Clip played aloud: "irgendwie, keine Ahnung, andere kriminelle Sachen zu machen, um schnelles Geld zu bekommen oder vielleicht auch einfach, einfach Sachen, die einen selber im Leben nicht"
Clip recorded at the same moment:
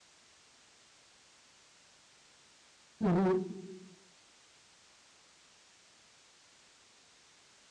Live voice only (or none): Mhm.